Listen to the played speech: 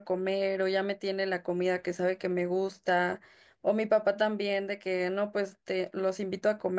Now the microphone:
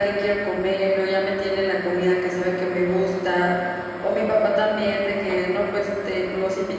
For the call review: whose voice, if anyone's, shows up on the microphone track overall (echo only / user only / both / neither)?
echo only